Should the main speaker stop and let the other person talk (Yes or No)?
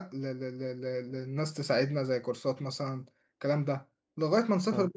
No